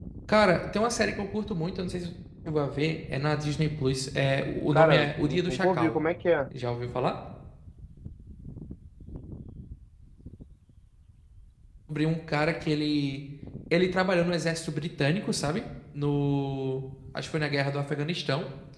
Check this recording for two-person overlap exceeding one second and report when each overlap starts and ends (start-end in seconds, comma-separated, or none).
4.7-6.0